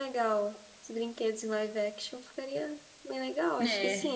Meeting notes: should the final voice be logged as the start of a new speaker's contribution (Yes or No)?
Yes